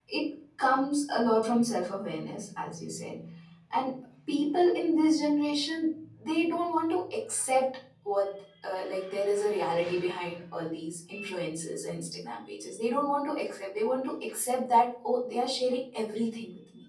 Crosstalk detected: No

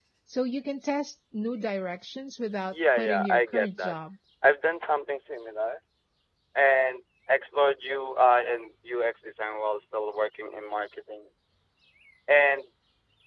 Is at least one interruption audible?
Yes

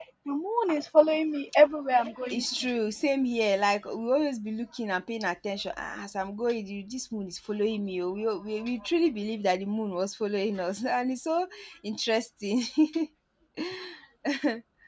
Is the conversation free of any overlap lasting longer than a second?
Yes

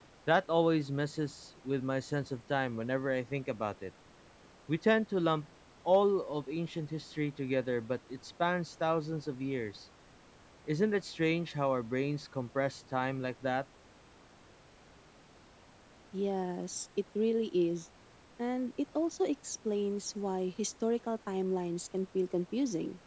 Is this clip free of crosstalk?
Yes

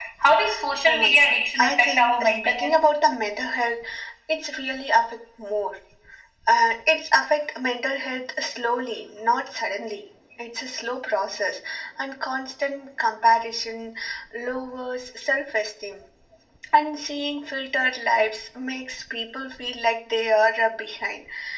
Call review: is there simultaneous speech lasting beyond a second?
Yes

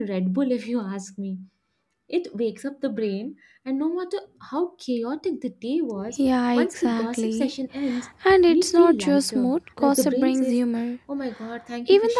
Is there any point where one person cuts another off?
Yes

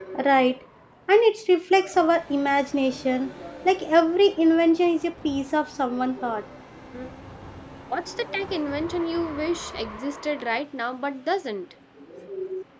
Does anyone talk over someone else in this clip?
No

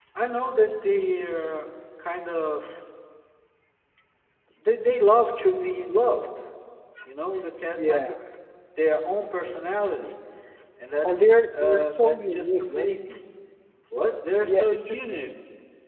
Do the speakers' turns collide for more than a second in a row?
Yes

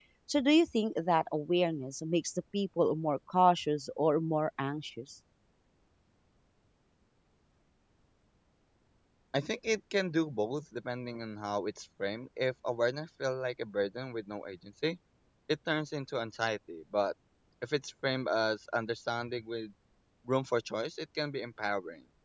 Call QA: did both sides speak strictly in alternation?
Yes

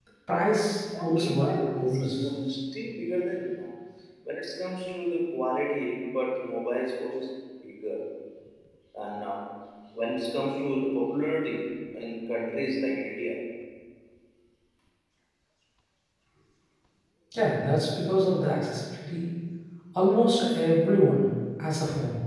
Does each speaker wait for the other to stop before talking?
No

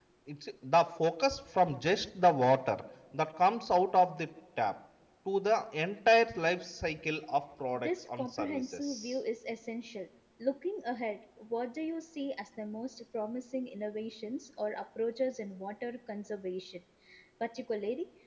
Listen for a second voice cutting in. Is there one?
Yes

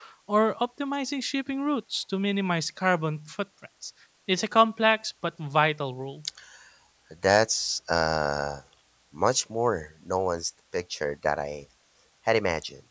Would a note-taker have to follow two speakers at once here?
No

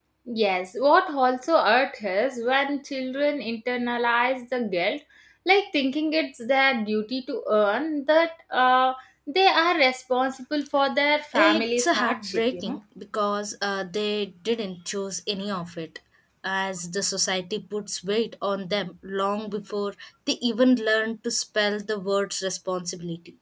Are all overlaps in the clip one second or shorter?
No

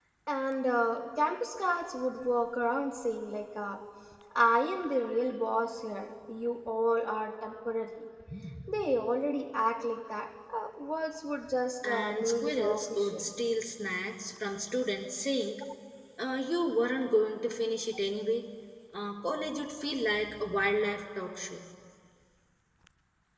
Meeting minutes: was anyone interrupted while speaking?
Yes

